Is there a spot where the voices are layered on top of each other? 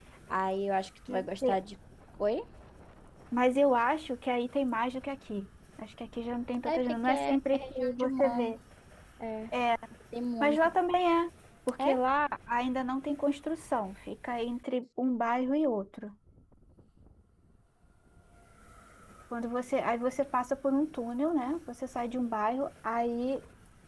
Yes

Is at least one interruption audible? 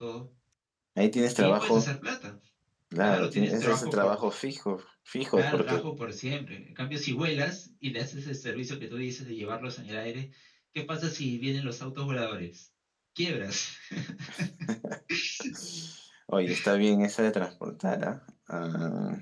Yes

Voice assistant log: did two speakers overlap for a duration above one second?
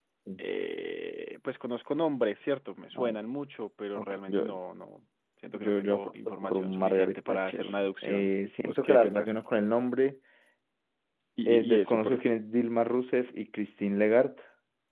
Yes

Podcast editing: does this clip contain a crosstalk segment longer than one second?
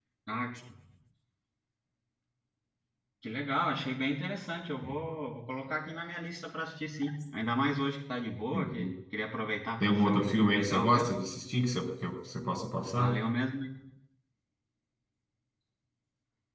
Yes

